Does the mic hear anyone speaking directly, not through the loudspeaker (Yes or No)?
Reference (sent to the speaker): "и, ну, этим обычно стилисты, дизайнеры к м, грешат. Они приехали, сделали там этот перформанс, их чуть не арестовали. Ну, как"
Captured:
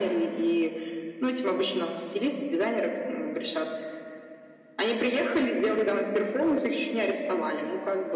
No